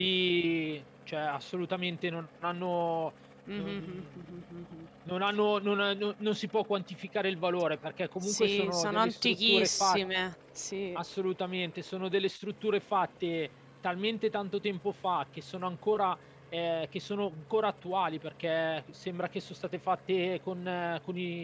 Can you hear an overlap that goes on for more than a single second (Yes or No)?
Yes